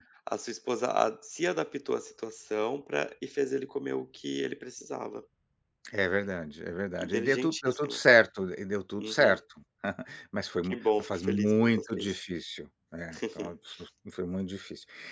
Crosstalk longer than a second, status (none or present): present